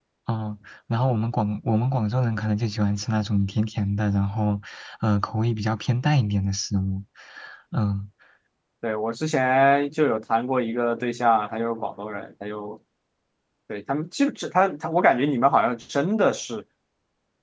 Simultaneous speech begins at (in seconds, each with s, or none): none